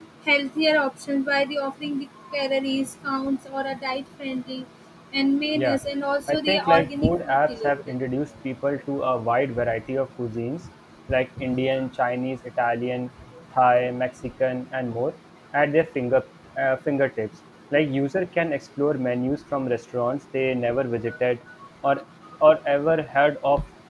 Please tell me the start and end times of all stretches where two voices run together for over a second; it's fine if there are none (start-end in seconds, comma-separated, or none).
6.3-7.9